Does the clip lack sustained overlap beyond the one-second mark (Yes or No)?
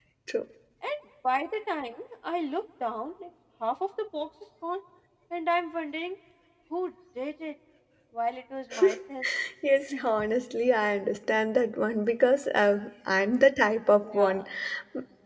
Yes